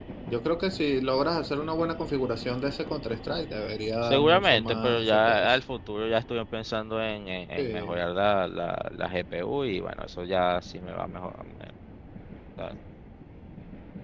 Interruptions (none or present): present